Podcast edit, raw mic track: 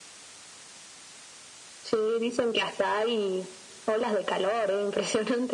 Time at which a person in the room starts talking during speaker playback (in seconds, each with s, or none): none